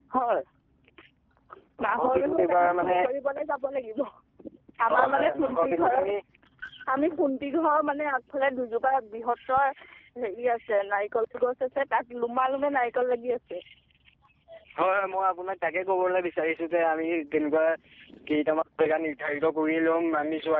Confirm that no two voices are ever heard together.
No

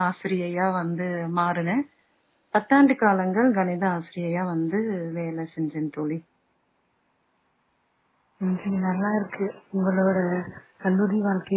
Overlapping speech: No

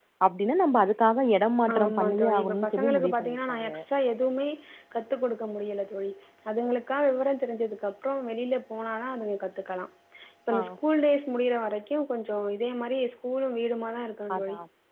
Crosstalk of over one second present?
Yes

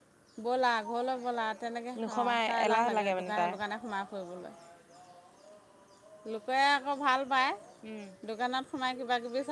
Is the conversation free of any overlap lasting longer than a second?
No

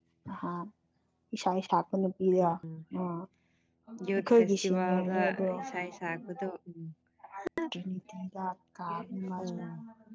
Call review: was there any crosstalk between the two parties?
Yes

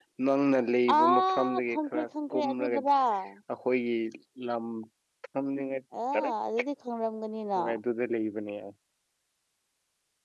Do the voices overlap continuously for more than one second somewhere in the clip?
Yes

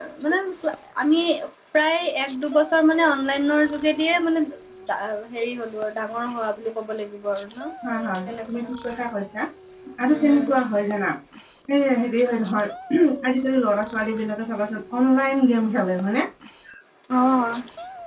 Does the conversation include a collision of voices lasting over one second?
No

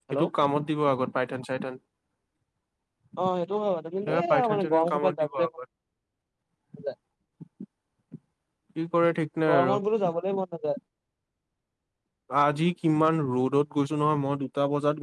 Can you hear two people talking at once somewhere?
Yes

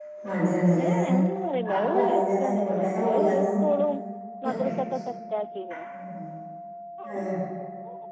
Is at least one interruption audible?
Yes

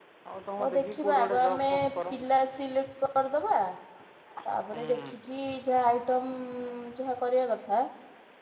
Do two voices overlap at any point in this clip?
Yes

